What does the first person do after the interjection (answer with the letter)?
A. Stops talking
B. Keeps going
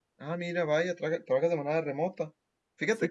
B